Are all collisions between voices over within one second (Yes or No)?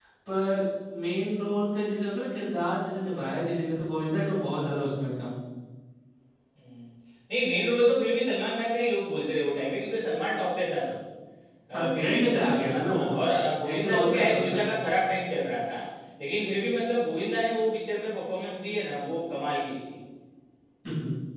No